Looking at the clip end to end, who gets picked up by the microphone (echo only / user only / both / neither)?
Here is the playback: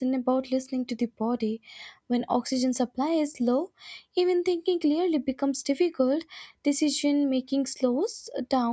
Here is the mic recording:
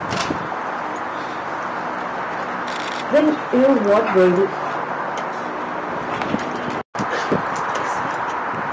user only